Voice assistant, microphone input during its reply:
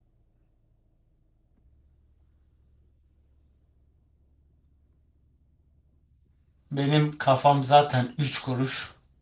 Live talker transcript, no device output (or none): benim kafam zaten üç kuruş.